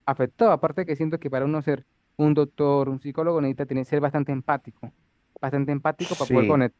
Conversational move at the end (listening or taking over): listening